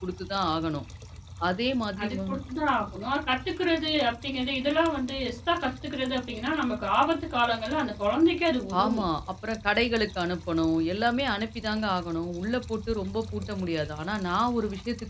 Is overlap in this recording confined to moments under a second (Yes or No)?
Yes